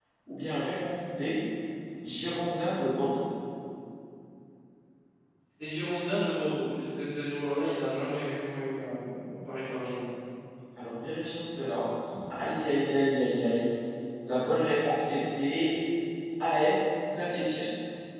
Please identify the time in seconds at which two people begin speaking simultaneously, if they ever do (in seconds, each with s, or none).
none